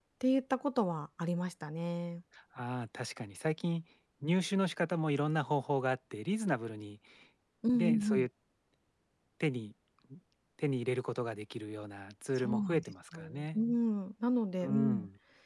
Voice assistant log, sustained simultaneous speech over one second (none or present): present